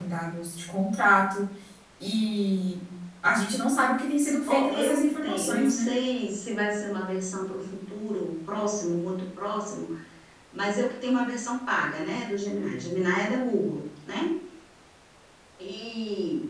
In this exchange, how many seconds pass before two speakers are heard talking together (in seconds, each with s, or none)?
4.1 s